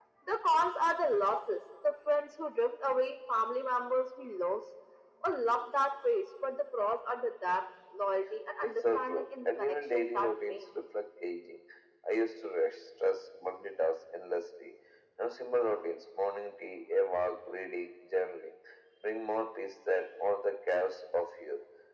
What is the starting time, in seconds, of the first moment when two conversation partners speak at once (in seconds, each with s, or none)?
8.6 s